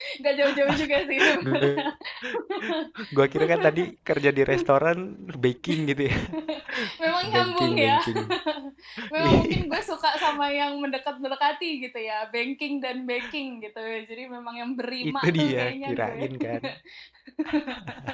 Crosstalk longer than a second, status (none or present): present